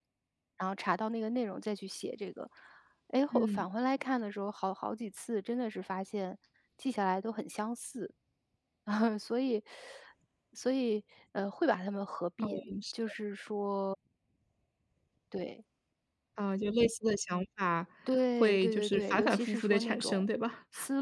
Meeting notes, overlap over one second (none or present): present